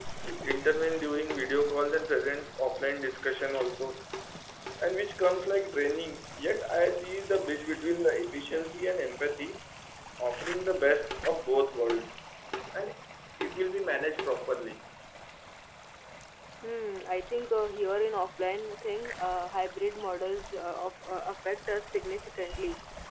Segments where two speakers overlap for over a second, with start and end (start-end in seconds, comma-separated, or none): none